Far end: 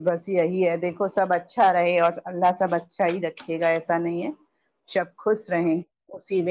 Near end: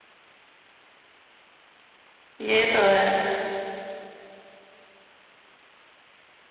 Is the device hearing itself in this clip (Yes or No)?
No